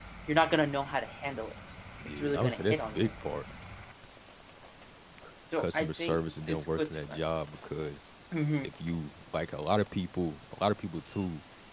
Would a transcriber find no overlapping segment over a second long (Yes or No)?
No